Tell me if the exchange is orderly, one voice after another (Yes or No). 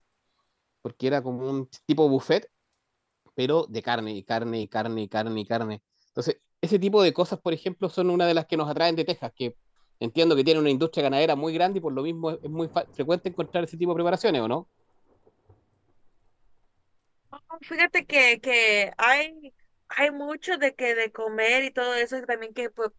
Yes